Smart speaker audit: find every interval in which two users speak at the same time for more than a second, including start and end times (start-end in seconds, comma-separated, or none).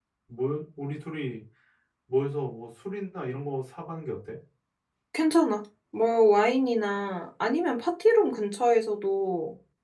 none